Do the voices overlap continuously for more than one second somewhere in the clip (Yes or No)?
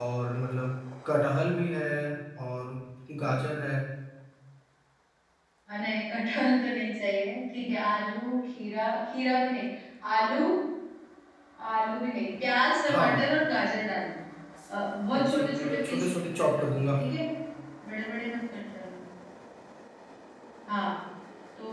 Yes